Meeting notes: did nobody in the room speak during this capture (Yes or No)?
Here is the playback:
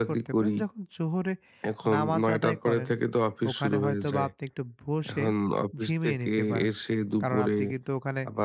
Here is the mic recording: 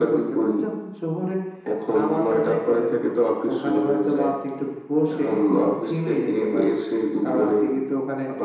Yes